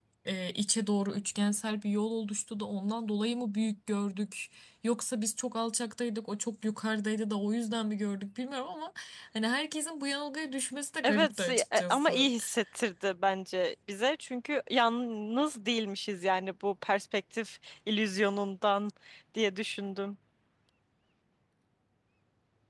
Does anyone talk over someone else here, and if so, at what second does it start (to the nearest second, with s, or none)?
11 s